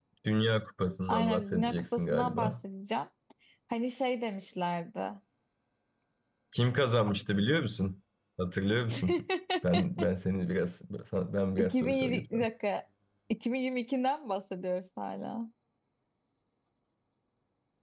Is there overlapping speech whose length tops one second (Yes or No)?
Yes